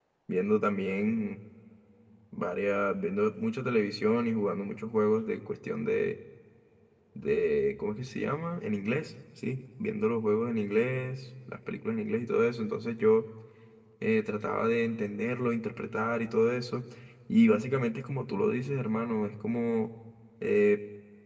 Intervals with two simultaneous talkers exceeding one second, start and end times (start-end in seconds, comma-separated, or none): none